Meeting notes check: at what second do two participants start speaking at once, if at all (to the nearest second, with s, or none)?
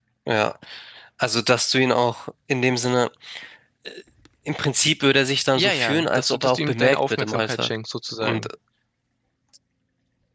6 s